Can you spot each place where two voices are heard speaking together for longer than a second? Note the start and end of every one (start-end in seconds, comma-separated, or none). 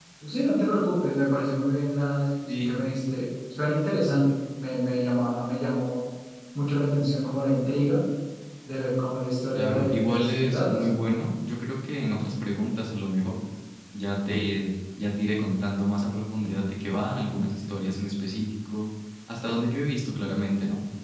9.6-10.8